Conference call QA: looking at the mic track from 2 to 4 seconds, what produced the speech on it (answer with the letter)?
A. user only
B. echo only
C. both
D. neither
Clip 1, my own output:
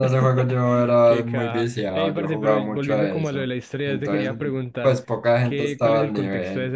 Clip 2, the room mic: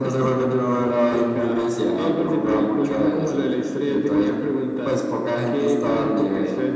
B